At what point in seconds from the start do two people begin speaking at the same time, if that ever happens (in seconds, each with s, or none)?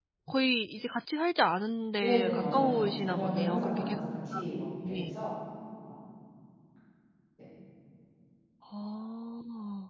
2.0 s